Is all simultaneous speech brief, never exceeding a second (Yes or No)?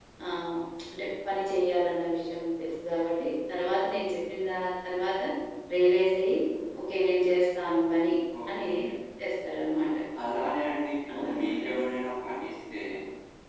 Yes